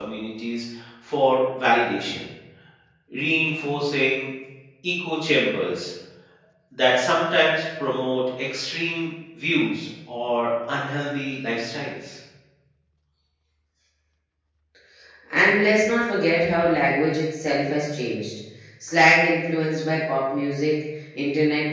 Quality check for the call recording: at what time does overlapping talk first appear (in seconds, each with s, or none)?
none